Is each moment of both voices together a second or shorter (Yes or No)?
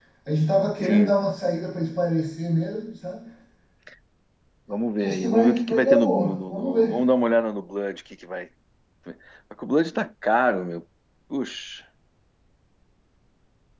No